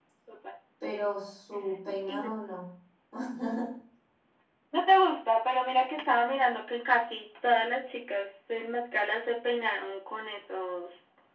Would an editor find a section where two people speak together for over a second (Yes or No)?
No